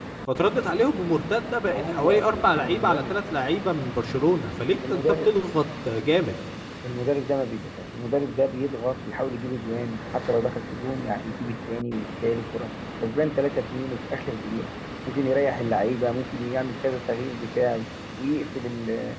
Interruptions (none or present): present